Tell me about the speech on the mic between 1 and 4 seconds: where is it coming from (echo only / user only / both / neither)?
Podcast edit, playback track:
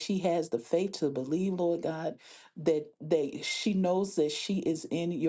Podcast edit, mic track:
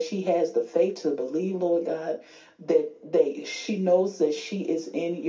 echo only